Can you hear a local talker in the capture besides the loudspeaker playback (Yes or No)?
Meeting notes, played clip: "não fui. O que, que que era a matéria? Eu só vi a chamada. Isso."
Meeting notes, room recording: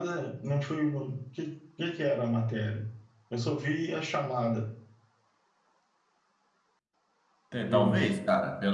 Yes